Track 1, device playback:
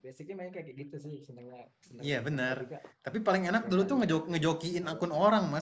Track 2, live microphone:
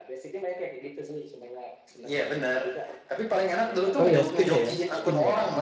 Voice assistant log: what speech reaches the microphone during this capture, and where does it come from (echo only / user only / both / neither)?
both